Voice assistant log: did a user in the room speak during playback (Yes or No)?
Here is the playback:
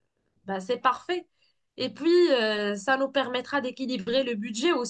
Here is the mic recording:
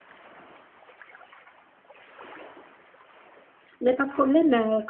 Yes